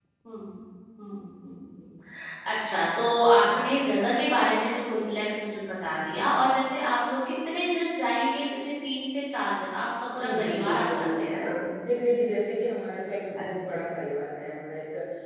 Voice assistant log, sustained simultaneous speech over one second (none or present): present